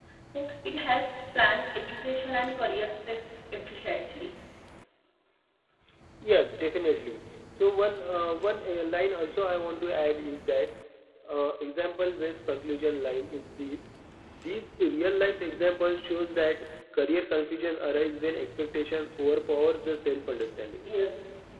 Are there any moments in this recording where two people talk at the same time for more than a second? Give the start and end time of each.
none

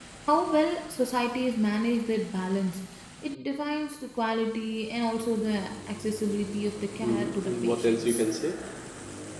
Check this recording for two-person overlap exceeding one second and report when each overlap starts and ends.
7.0-8.2

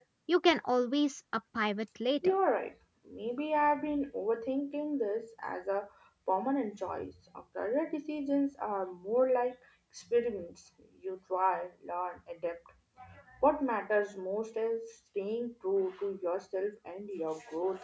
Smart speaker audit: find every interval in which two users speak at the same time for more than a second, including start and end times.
none

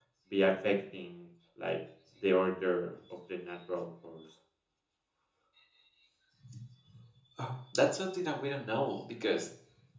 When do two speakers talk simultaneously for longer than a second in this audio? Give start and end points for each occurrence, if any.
none

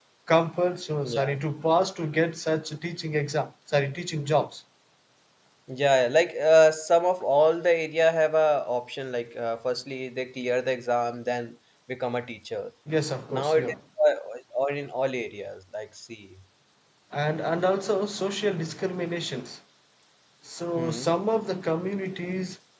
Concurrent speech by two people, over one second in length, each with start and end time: none

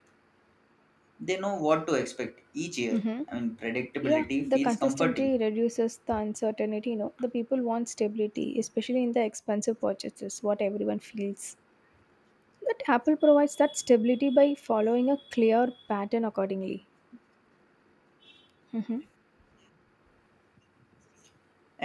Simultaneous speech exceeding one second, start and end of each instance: 4.0-5.4

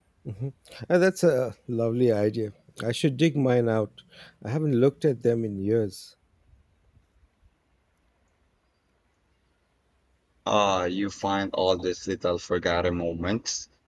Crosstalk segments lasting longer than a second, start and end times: none

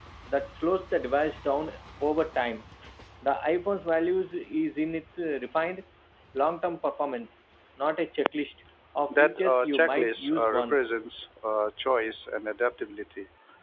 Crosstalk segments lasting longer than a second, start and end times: 9.1-10.8

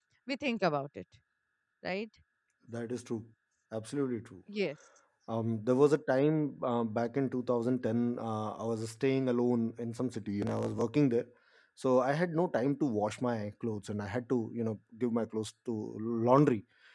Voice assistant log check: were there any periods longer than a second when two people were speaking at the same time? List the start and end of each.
none

